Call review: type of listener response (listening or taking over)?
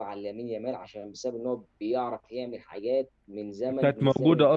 taking over